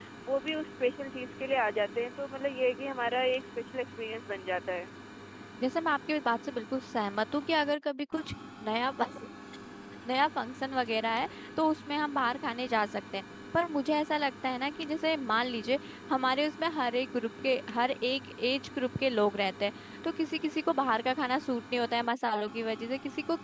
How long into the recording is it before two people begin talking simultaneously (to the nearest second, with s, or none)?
none